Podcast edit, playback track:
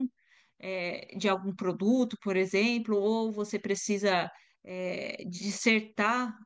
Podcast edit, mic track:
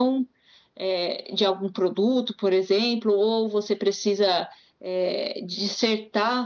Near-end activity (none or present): none